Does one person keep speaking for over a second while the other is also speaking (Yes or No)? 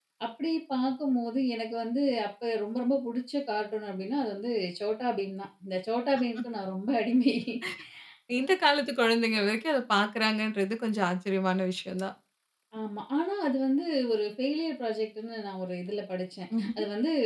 No